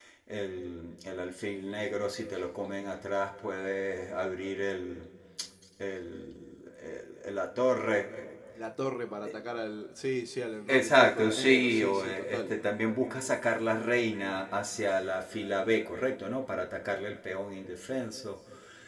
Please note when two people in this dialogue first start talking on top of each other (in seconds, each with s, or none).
10.7 s